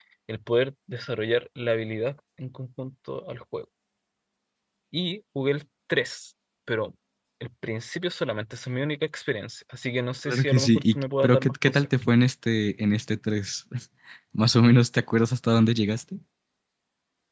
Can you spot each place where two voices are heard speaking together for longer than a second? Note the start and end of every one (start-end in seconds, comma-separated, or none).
10.3-11.9